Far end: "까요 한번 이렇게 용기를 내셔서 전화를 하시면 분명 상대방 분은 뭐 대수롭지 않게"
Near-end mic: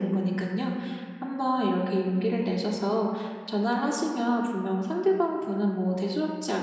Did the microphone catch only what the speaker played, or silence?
Yes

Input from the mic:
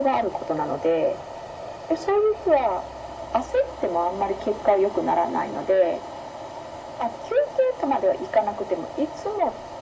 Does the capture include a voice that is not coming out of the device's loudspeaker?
No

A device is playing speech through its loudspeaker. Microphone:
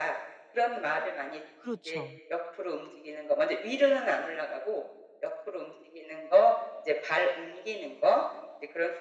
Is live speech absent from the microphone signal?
No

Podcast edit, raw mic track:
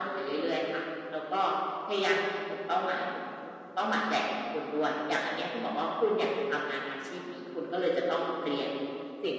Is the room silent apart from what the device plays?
Yes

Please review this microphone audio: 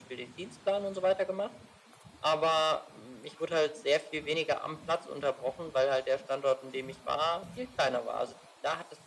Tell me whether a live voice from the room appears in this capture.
No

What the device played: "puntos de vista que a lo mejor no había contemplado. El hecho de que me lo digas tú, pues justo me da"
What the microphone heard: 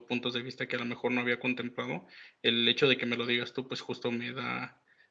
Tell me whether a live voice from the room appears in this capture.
No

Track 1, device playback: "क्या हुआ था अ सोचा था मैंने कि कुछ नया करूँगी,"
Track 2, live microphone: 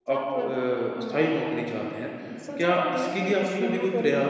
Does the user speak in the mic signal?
Yes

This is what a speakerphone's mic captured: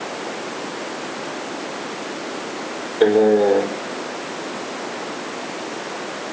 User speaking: Yes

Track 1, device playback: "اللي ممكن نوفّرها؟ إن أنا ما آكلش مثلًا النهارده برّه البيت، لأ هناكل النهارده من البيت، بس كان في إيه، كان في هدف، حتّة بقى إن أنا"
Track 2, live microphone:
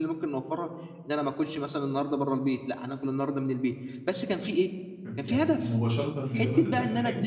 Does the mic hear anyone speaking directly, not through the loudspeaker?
Yes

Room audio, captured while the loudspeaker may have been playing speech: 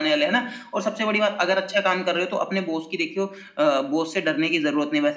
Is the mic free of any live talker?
Yes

